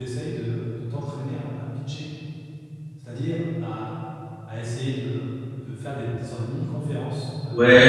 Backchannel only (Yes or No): No